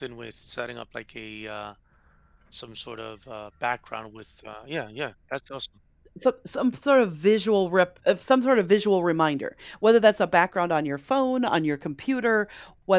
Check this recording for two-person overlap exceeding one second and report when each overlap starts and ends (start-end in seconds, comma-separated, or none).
none